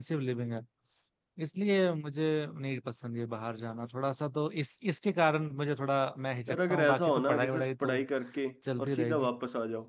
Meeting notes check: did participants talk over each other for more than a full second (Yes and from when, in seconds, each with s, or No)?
Yes, from 6.5 s